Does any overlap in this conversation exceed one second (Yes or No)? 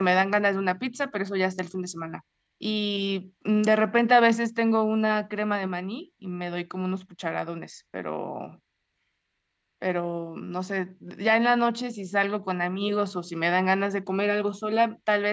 No